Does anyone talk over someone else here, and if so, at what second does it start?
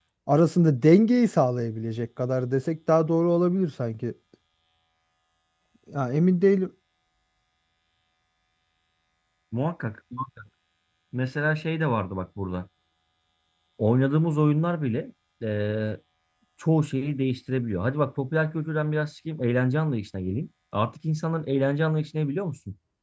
none

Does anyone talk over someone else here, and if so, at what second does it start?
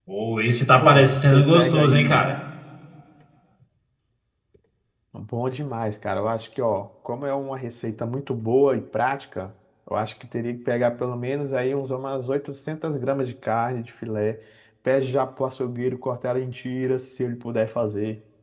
0.8 s

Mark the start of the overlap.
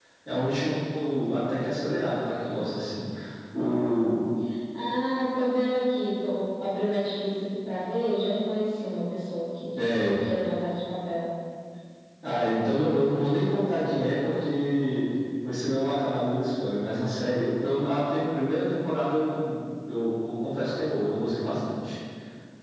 none

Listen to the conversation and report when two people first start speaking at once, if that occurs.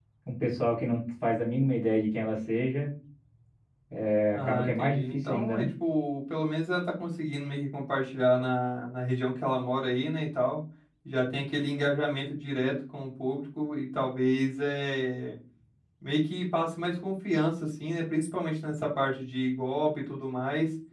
4.3 s

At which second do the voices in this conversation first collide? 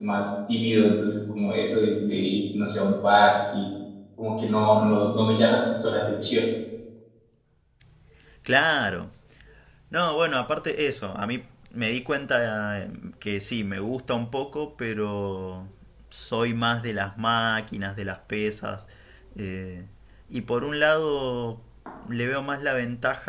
none

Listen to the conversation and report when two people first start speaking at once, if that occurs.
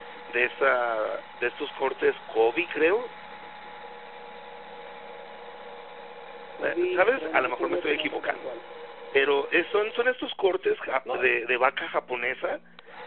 6.6 s

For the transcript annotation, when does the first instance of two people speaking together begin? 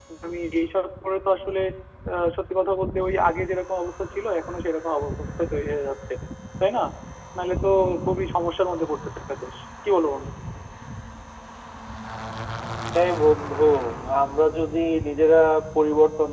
none

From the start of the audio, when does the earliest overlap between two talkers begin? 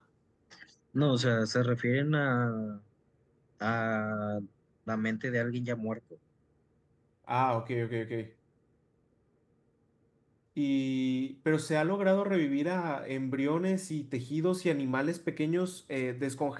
none

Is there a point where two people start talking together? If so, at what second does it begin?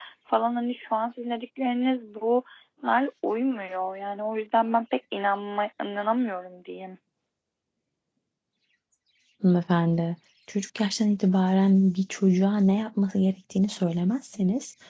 none

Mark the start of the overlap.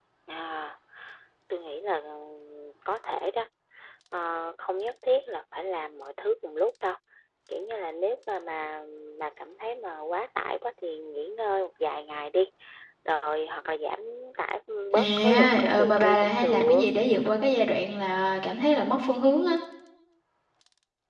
14.9 s

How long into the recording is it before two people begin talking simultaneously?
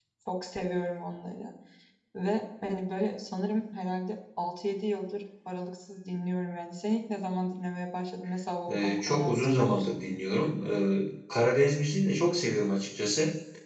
8.7 s

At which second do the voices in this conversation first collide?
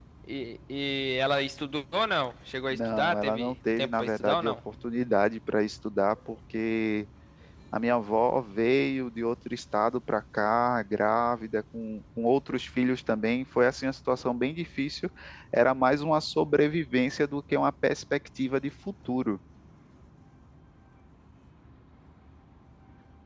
2.7 s

